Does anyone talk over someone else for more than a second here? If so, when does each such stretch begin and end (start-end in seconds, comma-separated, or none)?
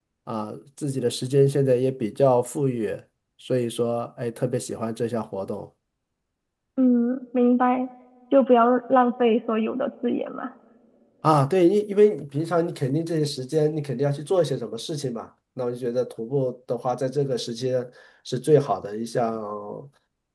none